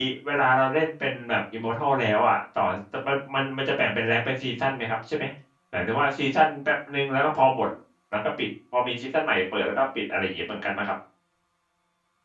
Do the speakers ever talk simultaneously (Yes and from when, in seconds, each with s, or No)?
No